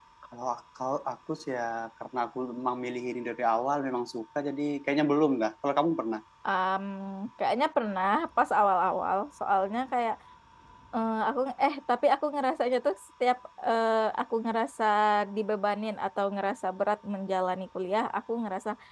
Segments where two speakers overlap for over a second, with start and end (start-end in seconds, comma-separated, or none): none